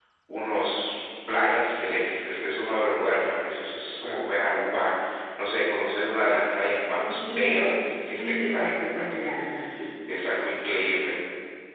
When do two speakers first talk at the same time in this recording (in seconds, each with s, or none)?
7.0 s